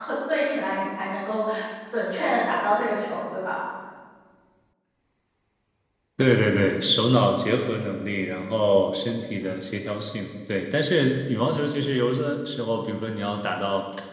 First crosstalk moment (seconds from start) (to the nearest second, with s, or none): none